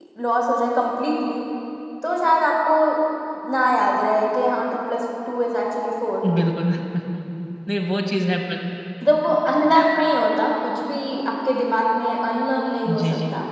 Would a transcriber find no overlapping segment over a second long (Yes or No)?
Yes